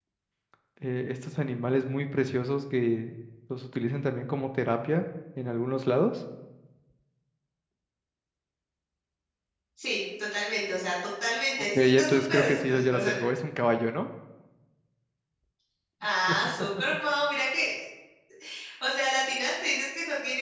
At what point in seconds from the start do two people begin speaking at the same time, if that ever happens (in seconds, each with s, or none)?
11.7 s